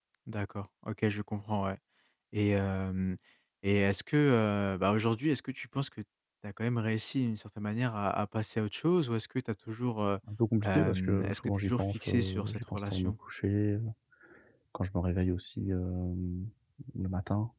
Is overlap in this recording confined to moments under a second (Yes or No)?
No